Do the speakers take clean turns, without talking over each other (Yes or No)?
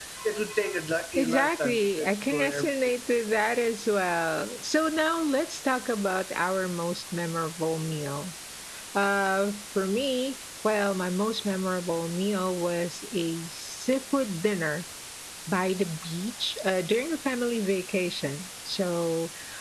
No